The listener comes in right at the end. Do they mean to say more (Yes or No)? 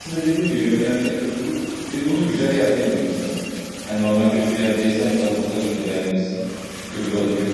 No